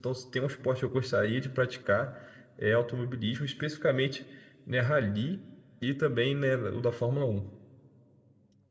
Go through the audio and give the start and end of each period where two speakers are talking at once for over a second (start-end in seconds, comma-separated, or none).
none